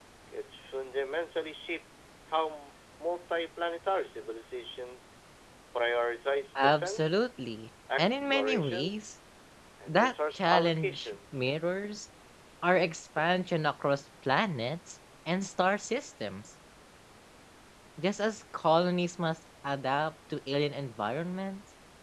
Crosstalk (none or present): present